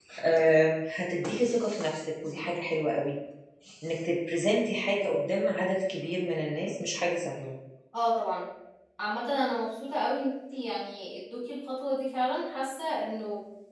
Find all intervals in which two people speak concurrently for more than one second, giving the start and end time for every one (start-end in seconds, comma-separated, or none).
none